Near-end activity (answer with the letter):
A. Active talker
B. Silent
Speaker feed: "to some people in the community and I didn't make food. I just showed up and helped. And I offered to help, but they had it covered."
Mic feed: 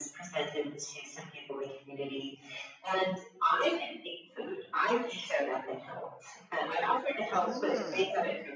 A